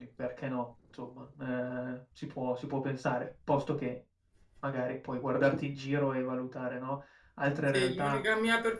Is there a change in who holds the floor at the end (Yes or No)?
Yes